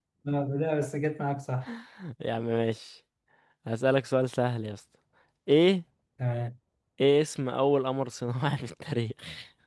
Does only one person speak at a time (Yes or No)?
Yes